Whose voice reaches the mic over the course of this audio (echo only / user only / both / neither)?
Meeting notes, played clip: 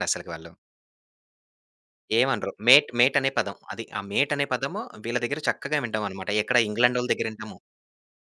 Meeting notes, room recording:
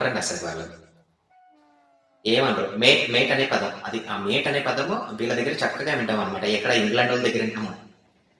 echo only